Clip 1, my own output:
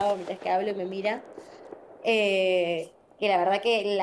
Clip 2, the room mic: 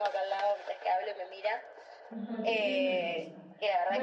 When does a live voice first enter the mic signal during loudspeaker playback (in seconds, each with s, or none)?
2.1 s